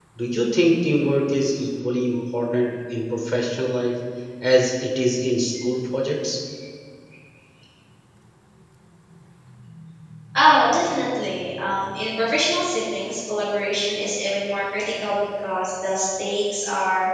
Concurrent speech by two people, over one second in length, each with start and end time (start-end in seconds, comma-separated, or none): none